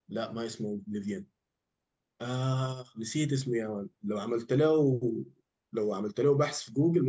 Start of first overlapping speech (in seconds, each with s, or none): none